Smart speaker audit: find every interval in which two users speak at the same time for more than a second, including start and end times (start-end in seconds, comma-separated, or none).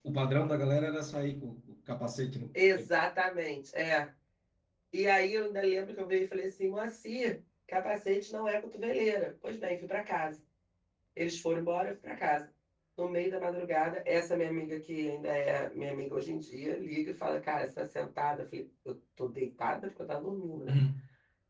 none